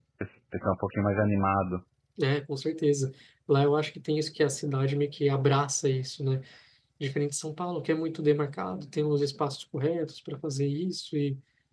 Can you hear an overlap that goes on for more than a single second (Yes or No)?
No